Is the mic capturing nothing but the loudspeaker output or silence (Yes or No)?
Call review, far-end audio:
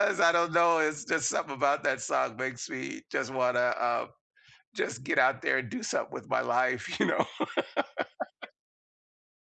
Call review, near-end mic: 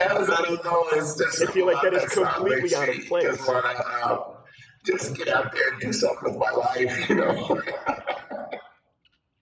No